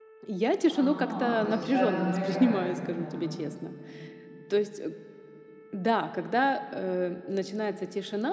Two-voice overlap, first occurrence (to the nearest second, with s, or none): 1 s